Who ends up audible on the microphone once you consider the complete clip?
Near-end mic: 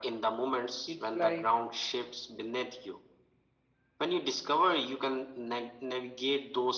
both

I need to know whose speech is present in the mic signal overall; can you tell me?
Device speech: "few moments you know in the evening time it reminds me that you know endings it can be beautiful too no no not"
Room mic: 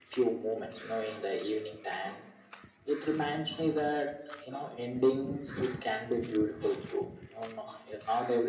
echo only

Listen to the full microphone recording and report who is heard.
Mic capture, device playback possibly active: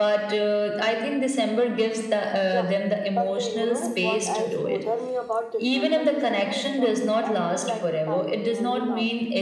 both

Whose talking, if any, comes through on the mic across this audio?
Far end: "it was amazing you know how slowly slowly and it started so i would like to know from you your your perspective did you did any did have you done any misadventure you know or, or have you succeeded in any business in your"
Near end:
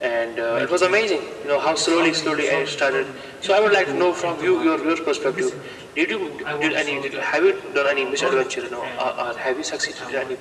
both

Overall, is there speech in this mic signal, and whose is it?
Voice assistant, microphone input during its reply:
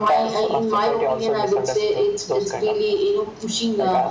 echo only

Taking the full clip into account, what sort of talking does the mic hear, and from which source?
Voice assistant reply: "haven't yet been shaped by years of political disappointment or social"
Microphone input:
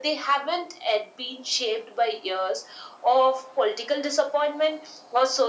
echo only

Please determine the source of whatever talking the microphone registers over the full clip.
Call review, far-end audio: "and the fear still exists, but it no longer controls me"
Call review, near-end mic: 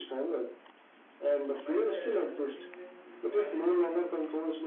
both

